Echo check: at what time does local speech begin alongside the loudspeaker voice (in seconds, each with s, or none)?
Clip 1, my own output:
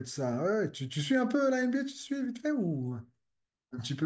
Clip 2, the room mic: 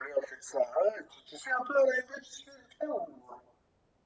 none